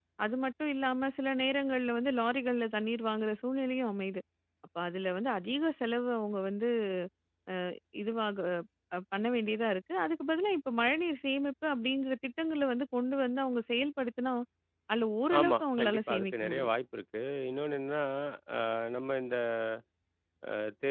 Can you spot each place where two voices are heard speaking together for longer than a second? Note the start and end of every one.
15.4-16.7

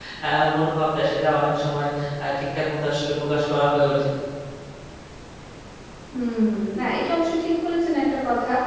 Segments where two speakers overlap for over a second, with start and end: none

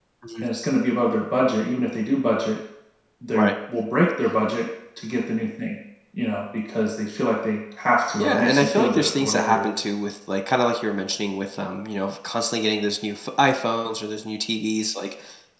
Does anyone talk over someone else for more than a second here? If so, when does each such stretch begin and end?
8.2-9.8

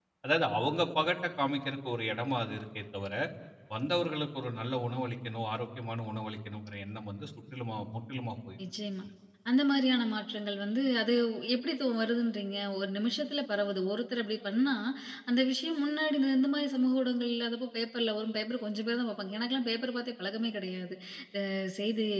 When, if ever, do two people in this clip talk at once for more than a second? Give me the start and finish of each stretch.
none

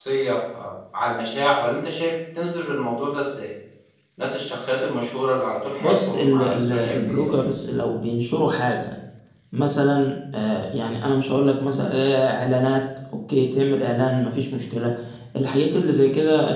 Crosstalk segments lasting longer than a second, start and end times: 5.8-7.3

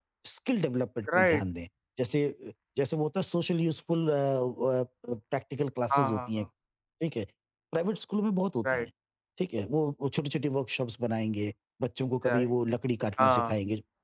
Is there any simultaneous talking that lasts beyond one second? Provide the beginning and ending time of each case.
none

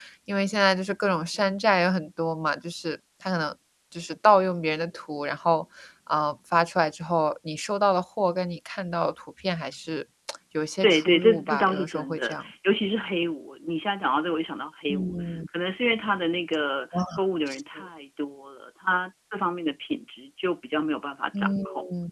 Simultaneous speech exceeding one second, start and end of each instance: 10.8-12.4

